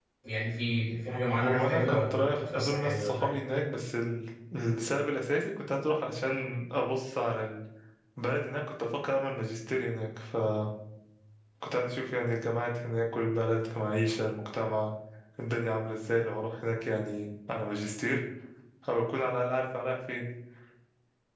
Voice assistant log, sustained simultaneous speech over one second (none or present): present